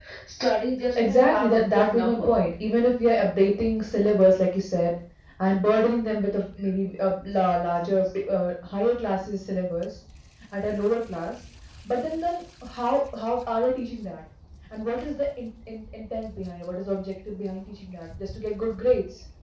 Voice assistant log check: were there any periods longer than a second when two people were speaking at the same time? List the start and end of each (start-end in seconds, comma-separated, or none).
1.0-2.3